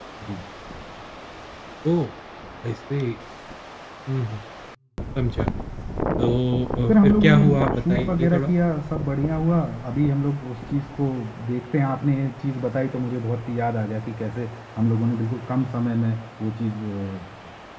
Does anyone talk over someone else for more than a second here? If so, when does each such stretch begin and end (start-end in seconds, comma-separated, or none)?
6.9-8.5